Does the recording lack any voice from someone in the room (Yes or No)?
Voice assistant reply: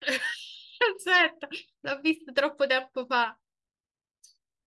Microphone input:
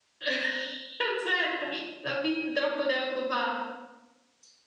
Yes